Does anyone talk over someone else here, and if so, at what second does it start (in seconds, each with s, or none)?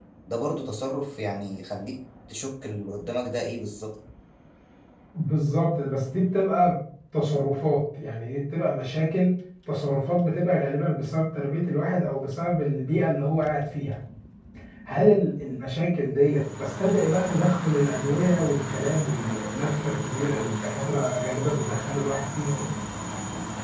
none